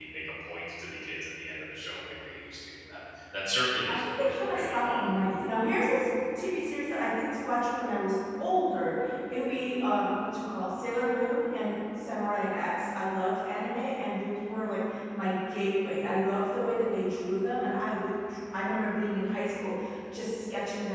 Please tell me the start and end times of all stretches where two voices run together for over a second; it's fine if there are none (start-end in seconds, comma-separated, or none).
3.9-5.1